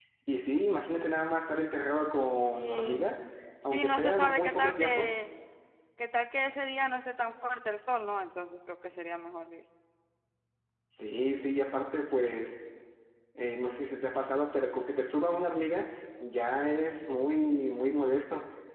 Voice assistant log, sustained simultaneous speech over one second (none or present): present